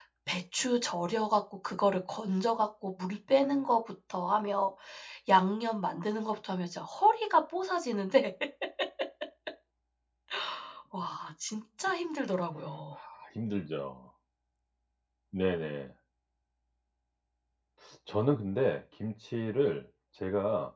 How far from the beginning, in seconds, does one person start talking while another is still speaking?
none

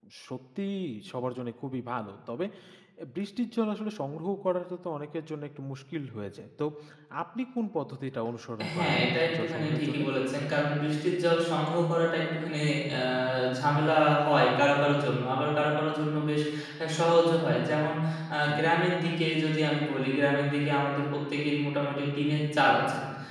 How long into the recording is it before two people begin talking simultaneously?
9 s

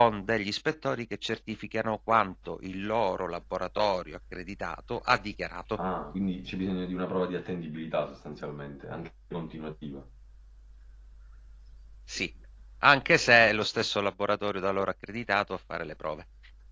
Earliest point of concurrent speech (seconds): none

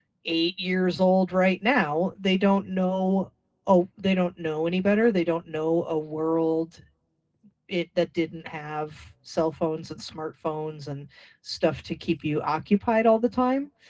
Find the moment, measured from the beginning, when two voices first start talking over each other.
none

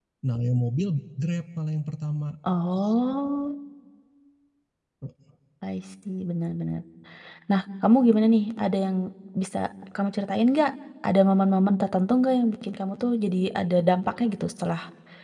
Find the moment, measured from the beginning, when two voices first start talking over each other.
none

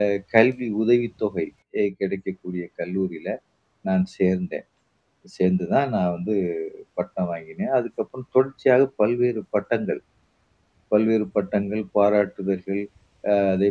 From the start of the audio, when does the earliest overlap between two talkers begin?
none

